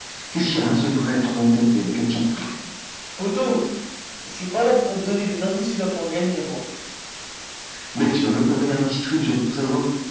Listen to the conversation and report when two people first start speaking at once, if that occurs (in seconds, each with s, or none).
none